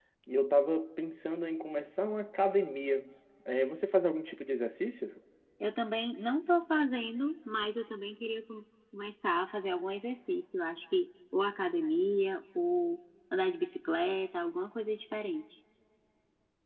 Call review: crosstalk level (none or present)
none